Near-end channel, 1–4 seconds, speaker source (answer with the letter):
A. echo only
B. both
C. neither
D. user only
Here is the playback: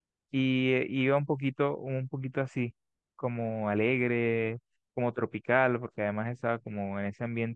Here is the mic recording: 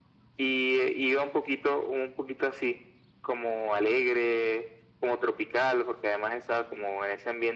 A